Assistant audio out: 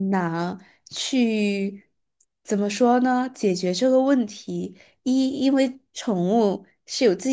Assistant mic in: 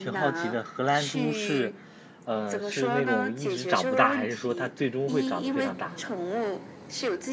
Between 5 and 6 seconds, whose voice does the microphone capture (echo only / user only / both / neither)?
both